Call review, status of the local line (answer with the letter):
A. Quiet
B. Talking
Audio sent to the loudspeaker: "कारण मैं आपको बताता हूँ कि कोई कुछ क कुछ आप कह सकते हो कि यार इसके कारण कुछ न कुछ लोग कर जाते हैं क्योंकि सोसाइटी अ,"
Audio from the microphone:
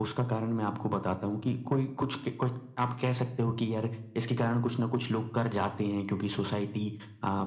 A